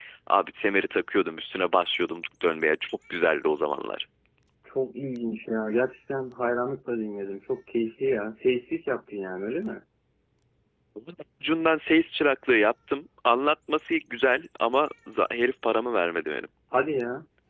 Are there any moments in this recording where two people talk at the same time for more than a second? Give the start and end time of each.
none

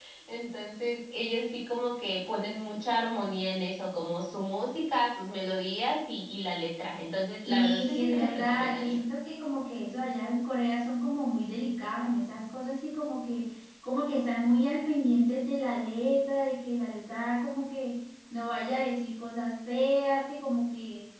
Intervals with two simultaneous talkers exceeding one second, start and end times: 7.5-9.0

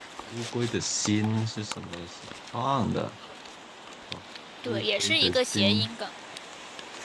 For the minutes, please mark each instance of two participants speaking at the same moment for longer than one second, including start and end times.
4.6-5.9

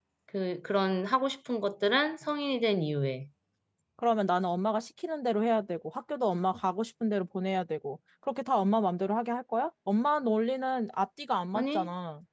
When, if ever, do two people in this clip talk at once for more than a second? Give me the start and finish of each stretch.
none

